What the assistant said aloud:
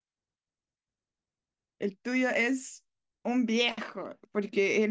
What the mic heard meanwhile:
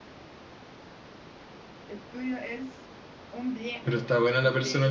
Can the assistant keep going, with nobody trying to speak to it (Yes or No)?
No